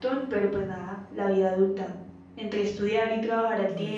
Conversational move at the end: listening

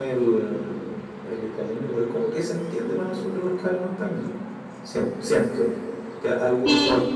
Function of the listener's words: listening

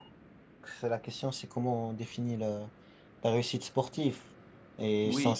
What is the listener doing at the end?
listening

